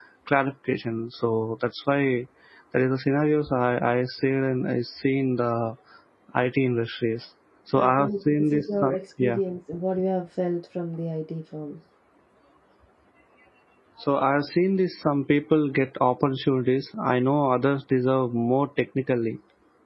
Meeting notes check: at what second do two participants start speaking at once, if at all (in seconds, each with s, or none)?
7.8 s